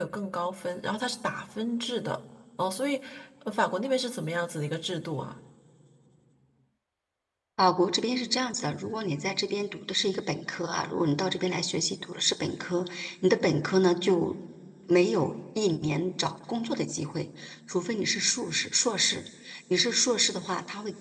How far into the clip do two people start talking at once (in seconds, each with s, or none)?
none